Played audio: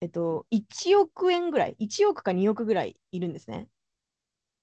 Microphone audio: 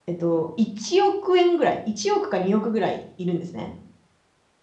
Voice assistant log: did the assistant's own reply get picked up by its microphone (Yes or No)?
Yes